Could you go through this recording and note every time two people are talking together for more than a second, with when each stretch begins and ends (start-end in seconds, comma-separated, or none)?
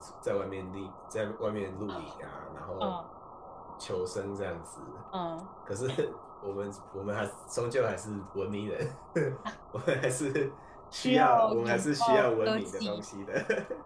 10.9-13.0